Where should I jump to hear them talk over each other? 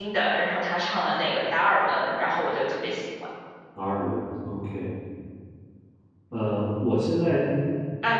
none

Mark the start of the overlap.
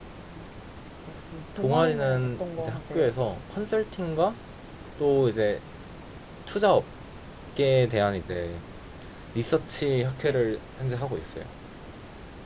1.6 s

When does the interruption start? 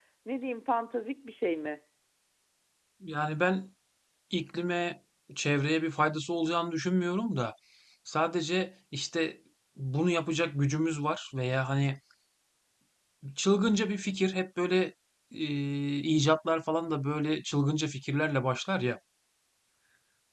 none

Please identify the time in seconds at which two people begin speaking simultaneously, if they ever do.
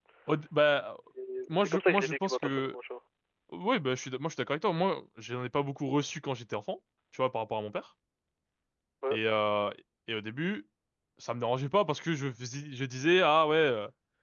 1.5 s

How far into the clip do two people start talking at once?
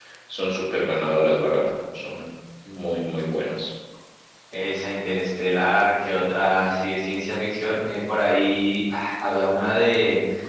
none

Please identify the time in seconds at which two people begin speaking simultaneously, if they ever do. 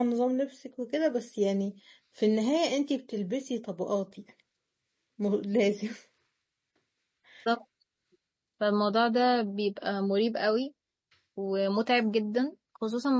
none

